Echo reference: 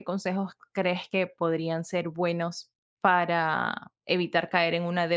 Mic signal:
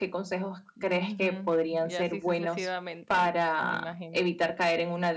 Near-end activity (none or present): present